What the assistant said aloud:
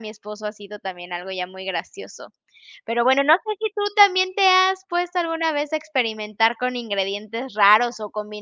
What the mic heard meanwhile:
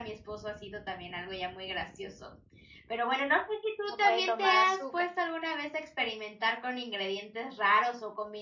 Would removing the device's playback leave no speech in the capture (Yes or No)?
No